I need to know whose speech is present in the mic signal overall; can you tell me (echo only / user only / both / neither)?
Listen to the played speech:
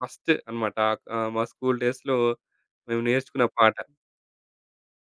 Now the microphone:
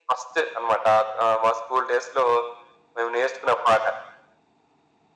echo only